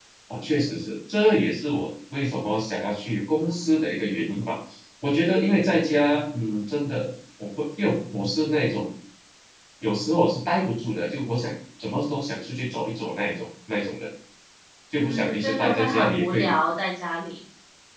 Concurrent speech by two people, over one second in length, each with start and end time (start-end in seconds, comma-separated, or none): 15.0-16.6